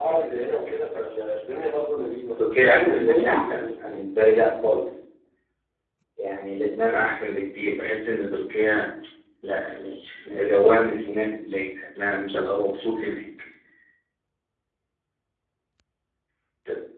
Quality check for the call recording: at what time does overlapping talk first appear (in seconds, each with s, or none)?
2.4 s